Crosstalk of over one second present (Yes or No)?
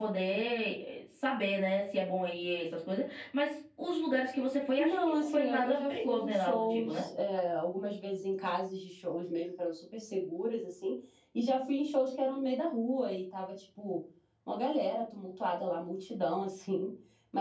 Yes